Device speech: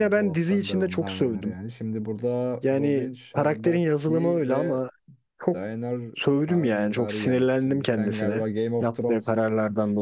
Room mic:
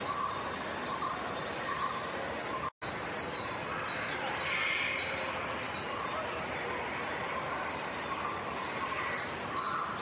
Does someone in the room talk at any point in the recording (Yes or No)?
No